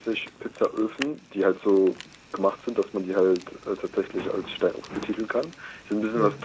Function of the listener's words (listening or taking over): listening